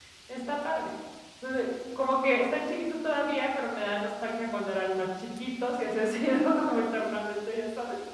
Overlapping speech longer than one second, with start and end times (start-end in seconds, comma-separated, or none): none